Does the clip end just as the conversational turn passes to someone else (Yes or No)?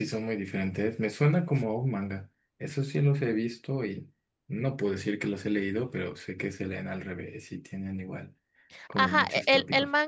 Yes